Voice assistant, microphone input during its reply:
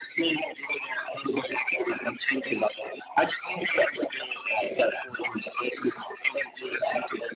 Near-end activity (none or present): none